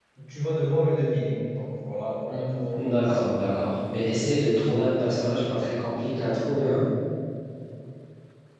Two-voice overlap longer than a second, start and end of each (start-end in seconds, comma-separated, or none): none